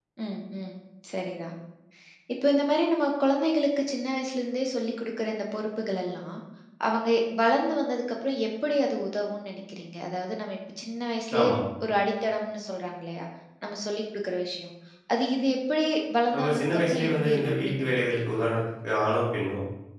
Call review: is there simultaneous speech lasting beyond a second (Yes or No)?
Yes